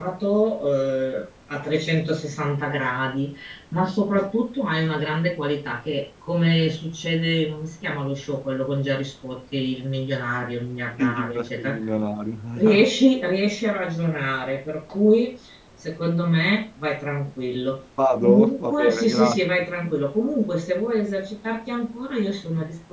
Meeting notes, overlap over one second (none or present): present